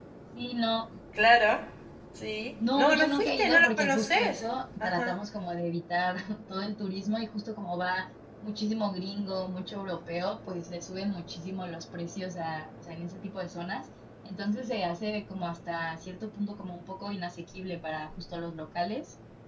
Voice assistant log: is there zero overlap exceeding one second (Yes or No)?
No